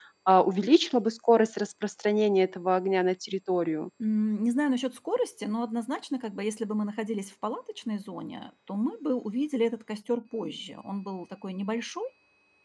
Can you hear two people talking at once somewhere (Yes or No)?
No